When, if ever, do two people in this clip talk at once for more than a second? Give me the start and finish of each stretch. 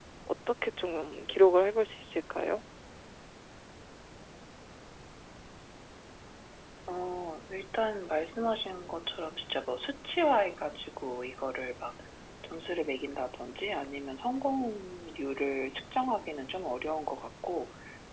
none

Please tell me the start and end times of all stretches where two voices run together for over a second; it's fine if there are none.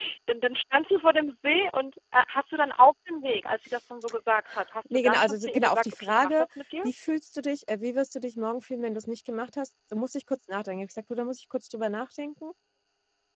4.9-6.5

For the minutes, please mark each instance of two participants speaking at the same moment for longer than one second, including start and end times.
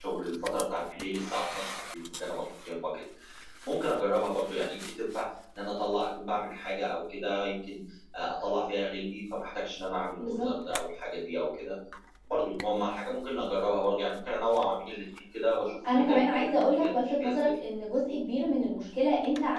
15.9-17.5

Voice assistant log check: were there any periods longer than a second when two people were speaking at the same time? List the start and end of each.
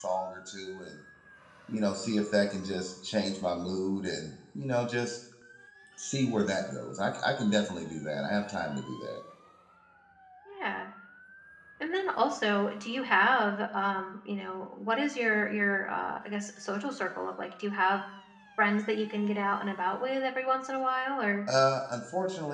none

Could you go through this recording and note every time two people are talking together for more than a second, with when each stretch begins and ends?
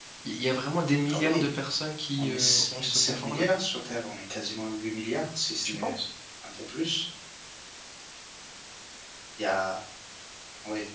2.2-3.5

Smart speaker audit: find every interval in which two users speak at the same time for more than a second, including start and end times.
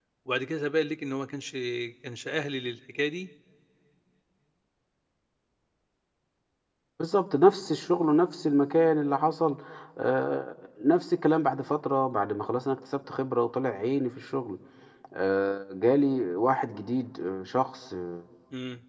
none

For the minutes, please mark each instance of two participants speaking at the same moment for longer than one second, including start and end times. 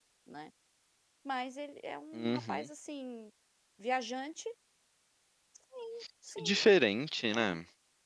none

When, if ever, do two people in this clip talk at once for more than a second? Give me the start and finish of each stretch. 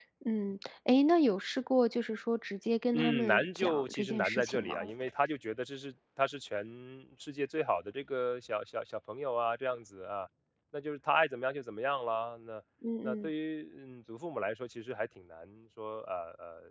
2.9-4.9

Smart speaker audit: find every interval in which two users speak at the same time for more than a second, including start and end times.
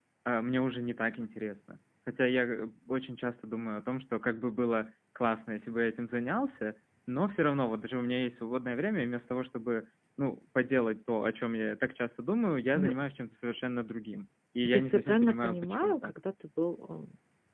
14.6-16.1

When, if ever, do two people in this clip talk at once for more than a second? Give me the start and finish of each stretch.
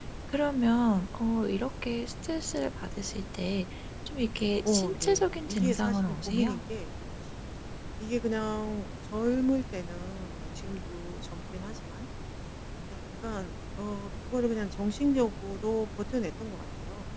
4.6-6.6

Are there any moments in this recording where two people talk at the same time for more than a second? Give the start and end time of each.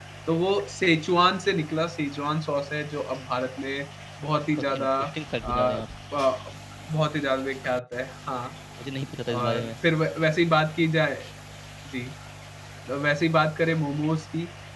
none

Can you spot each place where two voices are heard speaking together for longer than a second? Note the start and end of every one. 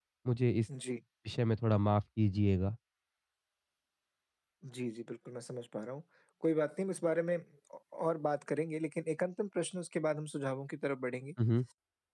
none

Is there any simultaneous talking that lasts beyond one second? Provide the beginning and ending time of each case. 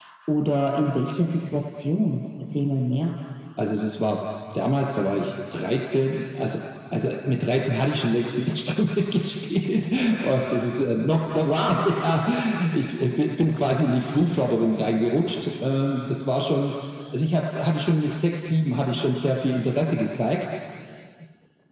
none

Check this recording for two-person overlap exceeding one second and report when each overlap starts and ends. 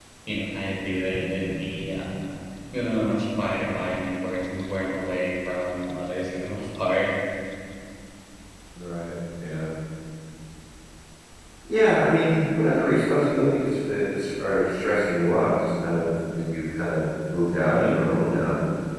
none

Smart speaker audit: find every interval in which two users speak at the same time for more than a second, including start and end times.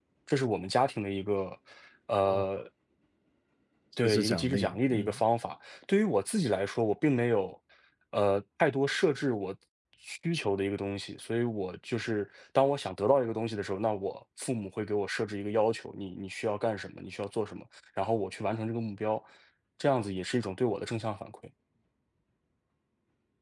4.0-5.2

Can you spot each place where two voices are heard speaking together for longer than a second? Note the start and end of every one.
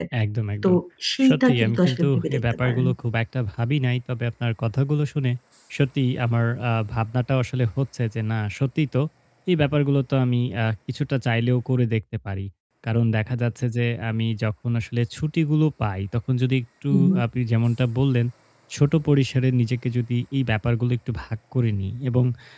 1.3-2.8

